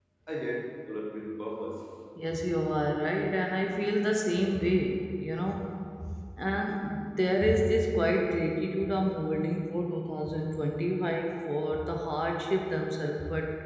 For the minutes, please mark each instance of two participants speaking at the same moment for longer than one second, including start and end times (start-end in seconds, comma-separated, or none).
none